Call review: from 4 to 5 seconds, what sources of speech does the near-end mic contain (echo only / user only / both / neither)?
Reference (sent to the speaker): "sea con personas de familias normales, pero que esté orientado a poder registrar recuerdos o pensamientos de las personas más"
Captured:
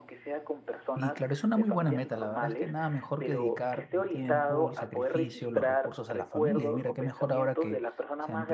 both